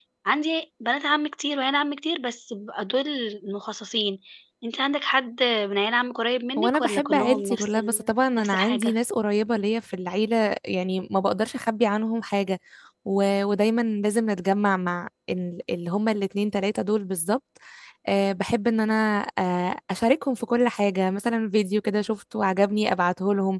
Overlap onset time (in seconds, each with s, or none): 6.6 s